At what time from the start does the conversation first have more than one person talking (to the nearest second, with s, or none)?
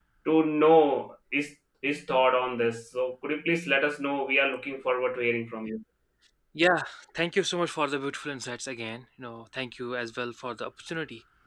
none